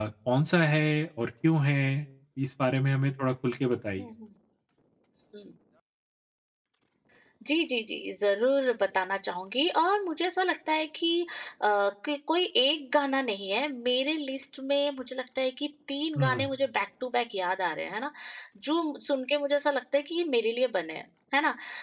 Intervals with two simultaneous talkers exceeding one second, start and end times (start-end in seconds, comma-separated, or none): none